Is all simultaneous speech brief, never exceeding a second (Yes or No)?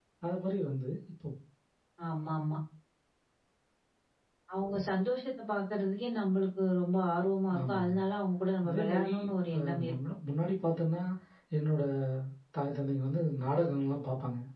No